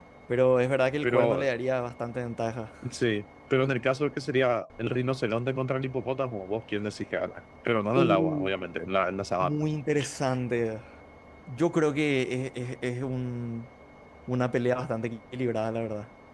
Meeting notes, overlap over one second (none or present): none